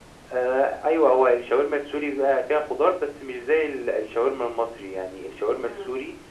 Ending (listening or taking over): listening